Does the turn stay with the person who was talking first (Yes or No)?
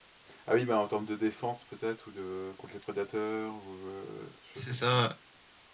No